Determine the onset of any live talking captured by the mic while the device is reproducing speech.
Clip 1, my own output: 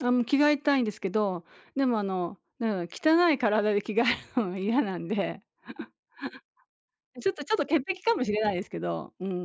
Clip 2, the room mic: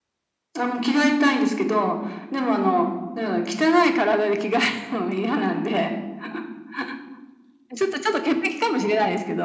none

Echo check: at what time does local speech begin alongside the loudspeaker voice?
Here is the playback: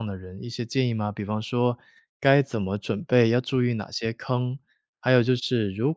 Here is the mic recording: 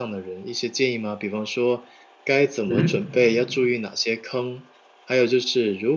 3 s

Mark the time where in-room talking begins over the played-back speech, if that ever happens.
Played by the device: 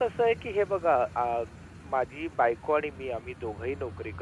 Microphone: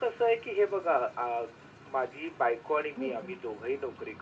3 s

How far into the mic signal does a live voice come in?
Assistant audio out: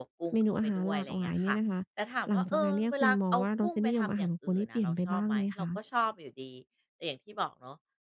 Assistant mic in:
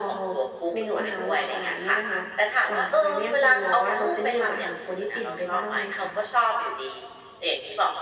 none

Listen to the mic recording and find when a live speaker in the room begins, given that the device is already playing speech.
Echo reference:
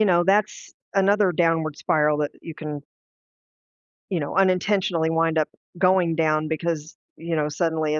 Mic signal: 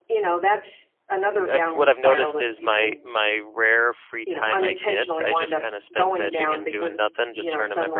1 s

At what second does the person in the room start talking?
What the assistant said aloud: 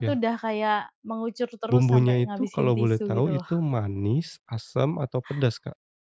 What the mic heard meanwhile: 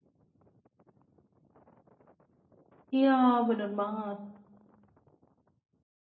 3 s

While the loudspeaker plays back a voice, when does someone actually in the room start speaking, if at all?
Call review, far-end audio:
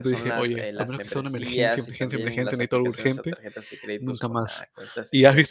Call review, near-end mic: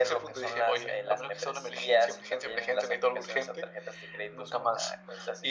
none

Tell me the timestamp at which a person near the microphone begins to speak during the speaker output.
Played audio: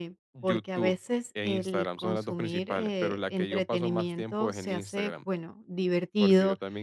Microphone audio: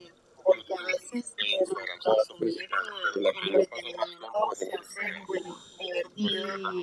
5 s

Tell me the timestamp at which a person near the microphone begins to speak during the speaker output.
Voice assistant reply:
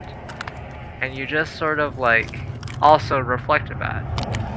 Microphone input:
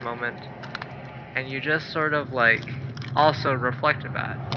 none

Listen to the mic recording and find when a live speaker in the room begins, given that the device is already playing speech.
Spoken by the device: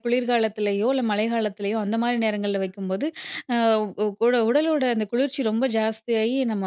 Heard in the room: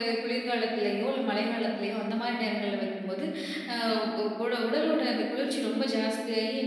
none

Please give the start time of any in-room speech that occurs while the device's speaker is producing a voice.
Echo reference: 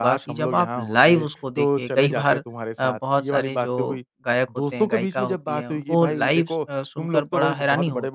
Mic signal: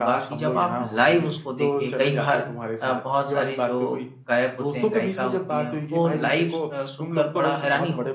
none

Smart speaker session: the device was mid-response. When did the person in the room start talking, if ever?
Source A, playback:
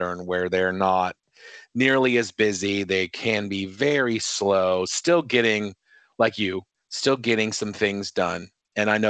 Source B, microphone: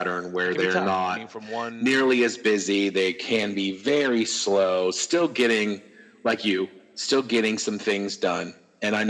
0 s

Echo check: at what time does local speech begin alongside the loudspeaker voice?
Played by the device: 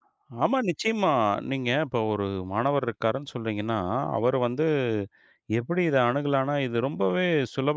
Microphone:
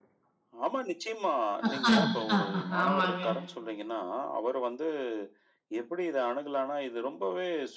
2 s

